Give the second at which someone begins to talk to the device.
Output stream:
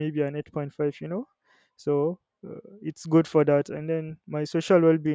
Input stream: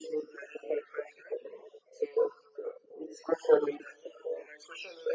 none

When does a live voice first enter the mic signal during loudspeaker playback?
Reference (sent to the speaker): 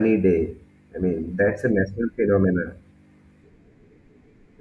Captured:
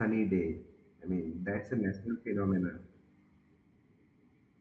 none

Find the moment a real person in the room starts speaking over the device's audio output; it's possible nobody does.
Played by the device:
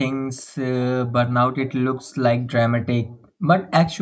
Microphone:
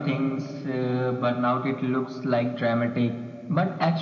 none

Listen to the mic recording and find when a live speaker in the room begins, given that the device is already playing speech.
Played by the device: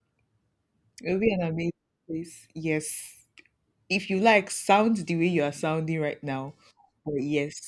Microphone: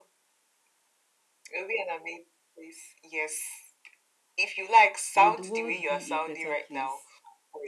5.1 s

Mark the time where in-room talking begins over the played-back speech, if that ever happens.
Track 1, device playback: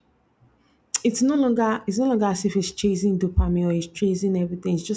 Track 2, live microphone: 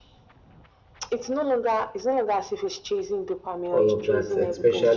3.7 s

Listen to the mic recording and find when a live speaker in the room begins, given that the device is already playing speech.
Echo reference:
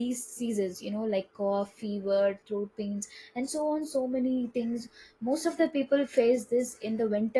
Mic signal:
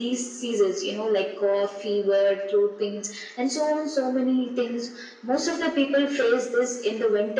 none

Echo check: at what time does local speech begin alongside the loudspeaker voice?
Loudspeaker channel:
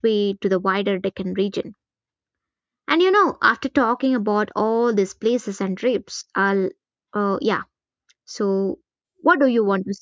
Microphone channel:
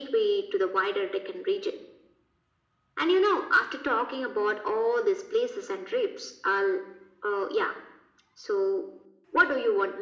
none

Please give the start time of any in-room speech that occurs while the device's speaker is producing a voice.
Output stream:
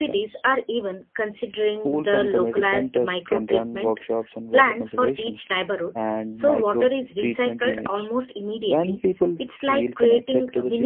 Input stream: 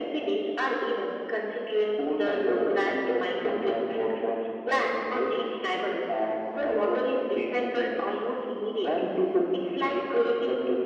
none

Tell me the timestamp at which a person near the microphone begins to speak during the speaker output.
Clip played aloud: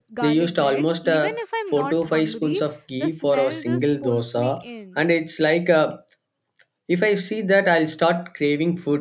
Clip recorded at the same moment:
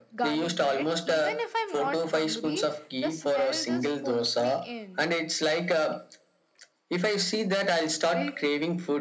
8.1 s

